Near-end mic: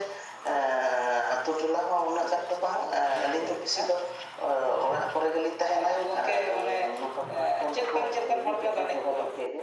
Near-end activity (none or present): none